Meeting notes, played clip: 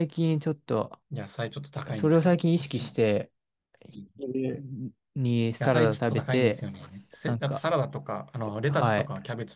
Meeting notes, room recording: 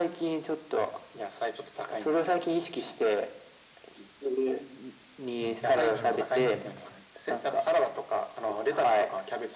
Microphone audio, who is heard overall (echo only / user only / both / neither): both